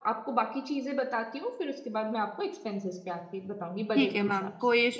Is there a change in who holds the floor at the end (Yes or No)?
Yes